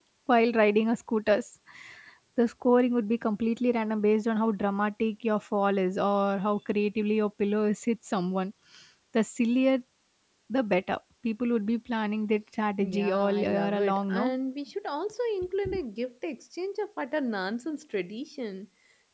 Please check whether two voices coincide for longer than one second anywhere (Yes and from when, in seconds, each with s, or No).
Yes, from 12.8 s